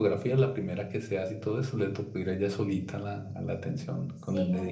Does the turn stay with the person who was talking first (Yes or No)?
No